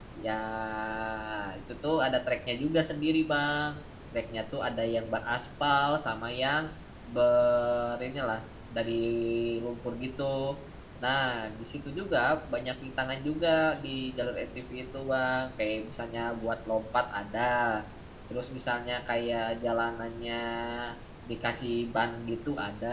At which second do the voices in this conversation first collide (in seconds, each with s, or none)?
none